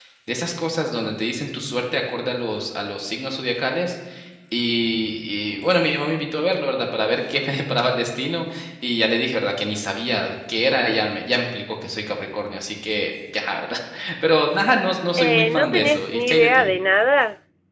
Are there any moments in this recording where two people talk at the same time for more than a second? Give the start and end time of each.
15.2-16.7

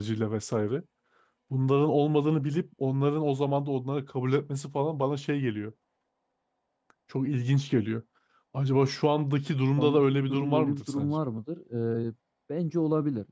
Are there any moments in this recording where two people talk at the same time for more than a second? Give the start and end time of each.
9.8-11.1

